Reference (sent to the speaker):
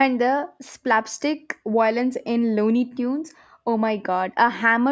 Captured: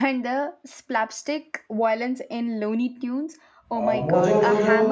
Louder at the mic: user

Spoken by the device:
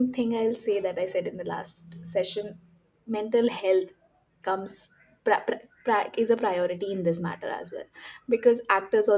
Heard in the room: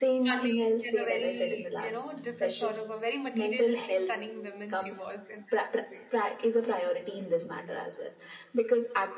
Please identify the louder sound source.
echo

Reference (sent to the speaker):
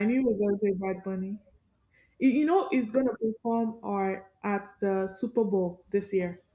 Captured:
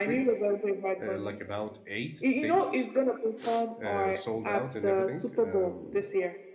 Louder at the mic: echo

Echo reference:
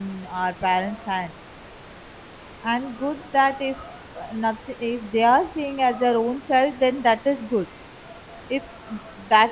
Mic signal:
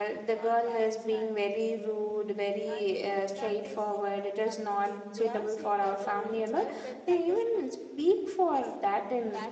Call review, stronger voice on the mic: user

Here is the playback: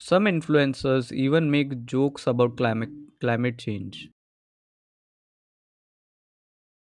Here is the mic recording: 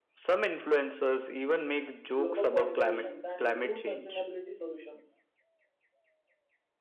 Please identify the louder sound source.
echo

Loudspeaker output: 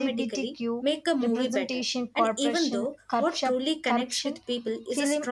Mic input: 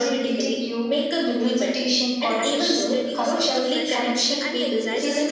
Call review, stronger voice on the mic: echo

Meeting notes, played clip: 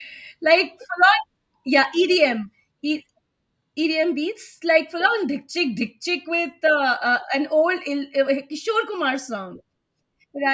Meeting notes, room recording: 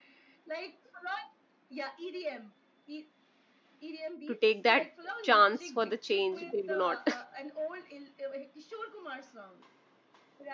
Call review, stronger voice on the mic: user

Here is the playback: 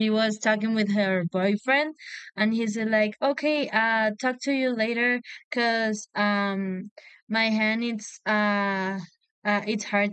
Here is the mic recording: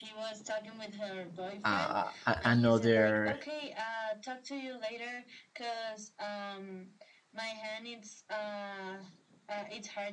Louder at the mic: user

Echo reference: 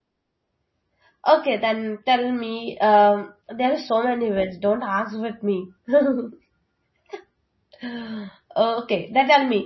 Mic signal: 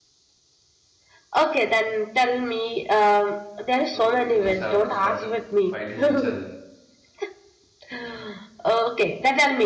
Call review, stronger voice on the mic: echo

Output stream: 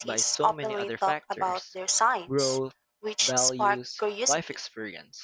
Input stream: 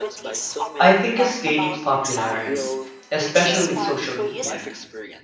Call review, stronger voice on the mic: user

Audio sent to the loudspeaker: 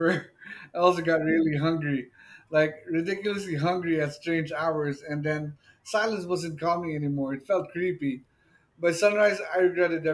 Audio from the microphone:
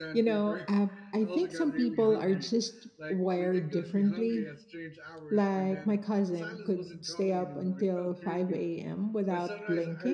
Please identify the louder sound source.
user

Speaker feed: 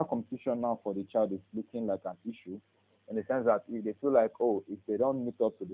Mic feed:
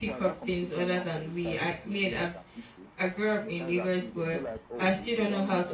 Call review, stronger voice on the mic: user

